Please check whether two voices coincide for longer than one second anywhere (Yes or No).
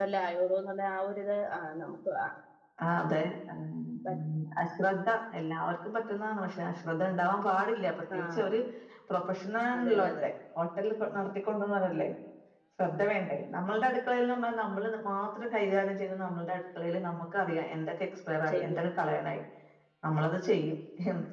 No